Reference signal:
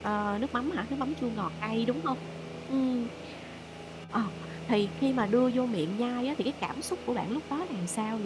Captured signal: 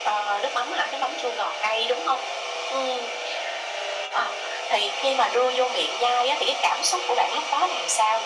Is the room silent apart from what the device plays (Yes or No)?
Yes